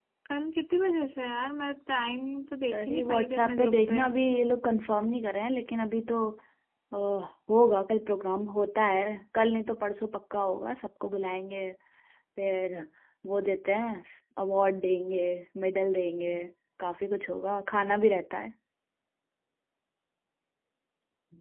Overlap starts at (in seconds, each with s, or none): 2.7 s